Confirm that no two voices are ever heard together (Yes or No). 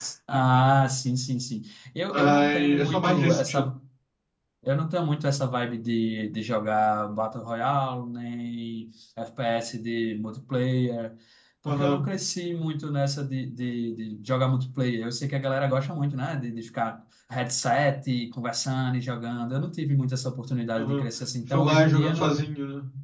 No